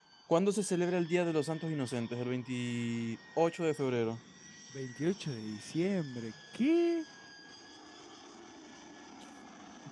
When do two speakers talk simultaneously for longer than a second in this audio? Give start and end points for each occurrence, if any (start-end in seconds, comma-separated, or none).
none